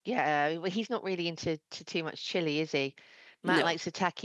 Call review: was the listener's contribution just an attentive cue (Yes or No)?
Yes